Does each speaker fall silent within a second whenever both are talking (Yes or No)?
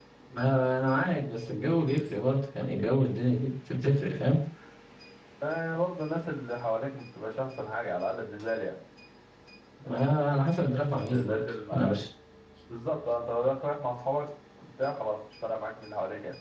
No